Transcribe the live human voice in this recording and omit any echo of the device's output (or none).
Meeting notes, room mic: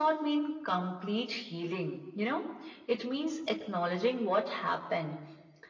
none